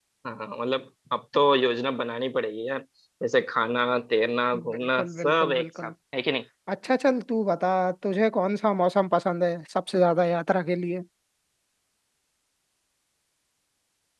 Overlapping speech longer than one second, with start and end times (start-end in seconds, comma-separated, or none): 4.7-5.9